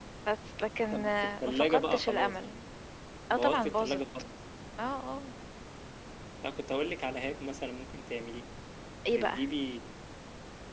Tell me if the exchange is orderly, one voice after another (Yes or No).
No